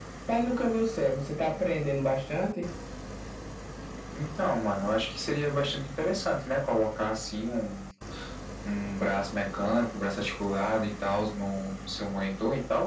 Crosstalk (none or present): none